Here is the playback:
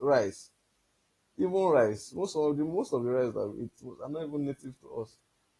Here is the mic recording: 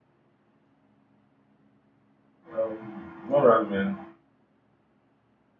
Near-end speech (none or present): present